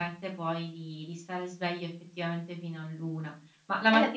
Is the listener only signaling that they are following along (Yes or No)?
No